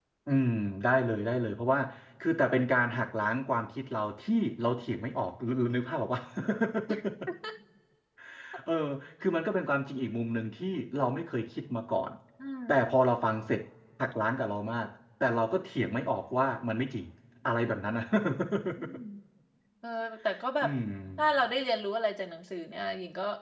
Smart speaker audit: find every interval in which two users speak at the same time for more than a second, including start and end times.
none

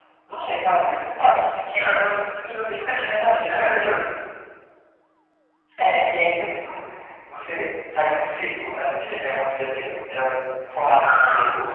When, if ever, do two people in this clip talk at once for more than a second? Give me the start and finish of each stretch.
2.8-4.0

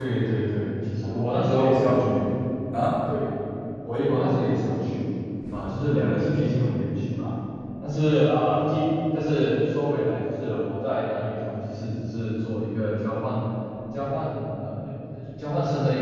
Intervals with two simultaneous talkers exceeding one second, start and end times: 1.0-2.3

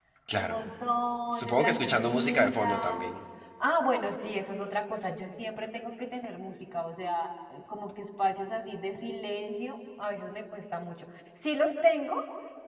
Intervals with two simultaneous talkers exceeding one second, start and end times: 1.3-3.0

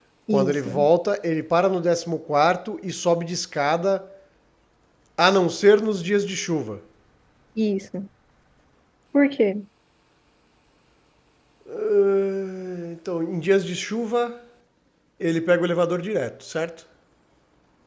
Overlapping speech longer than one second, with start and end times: none

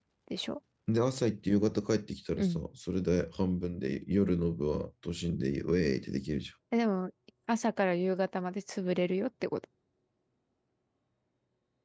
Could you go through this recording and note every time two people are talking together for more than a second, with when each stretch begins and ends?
none

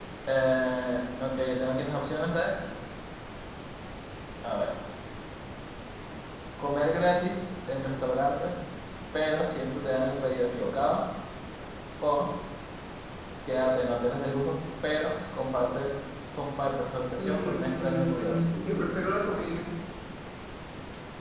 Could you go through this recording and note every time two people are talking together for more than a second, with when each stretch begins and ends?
17.2-18.4

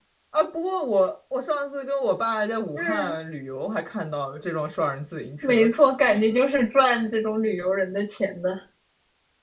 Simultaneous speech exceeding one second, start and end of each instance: none

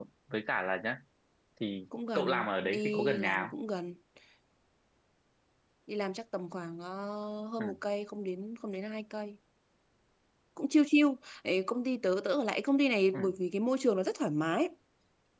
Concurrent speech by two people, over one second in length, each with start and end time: 2.2-3.5

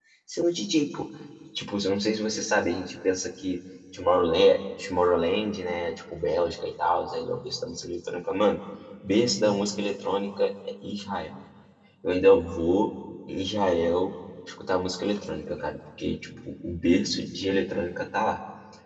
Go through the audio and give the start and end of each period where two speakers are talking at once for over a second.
none

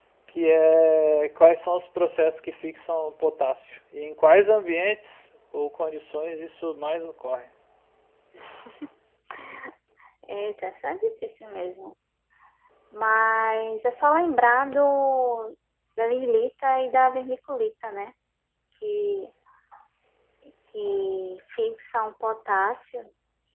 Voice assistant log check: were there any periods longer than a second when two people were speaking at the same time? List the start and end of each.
none

